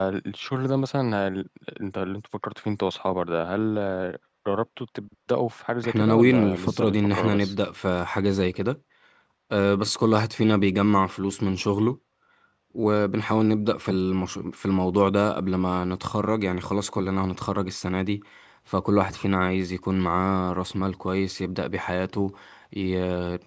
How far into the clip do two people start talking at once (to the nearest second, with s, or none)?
6 s